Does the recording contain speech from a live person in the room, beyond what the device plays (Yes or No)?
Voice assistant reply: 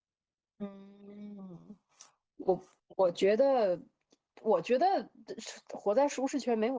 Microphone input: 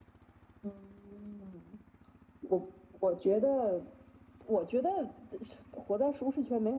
No